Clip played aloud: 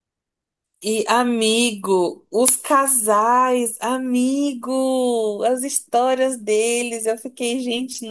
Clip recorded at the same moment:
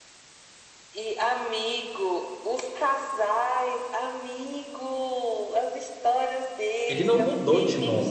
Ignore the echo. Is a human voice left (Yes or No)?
Yes